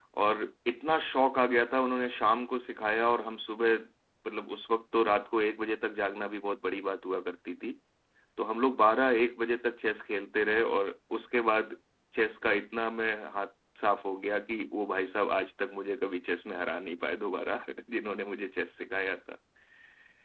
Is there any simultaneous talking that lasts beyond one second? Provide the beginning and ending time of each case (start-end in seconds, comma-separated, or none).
none